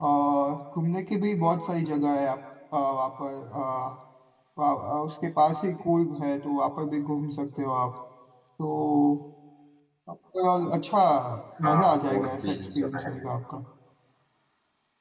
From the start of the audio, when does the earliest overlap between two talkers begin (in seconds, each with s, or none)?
11.7 s